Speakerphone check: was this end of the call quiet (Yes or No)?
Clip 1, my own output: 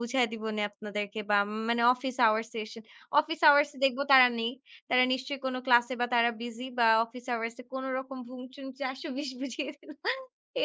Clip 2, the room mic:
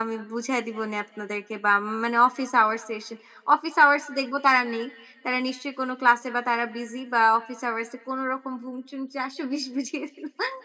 Yes